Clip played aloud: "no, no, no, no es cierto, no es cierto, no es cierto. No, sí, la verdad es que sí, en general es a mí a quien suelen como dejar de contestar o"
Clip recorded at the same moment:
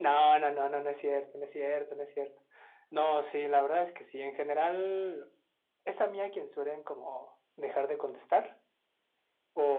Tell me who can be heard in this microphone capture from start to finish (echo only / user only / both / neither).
echo only